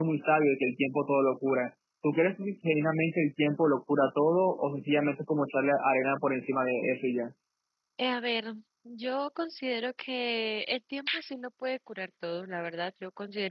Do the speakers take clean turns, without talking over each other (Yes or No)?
Yes